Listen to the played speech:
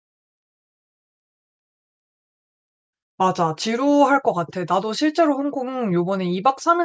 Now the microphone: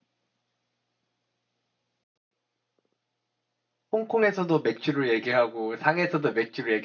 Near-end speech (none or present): present